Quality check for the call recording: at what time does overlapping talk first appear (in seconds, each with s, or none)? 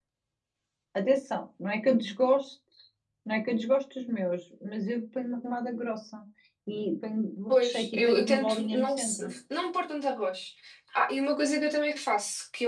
7.5 s